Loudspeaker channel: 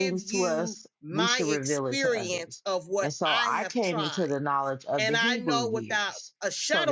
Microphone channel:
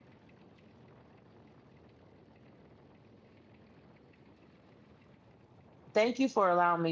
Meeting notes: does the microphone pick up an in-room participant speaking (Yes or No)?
Yes